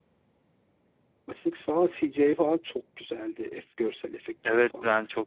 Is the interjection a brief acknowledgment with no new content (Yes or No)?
No